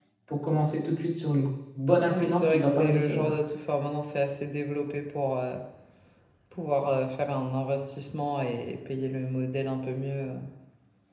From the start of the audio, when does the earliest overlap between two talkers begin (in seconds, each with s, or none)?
2.1 s